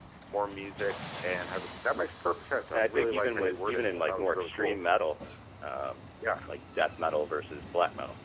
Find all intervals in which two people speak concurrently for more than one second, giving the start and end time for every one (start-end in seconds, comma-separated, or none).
2.7-4.8